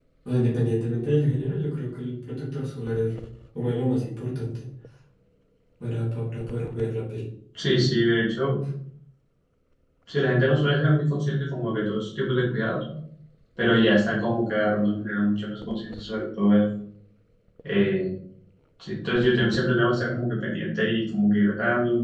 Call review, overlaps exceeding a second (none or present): none